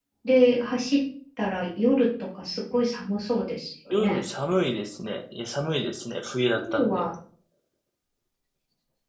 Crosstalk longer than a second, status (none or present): none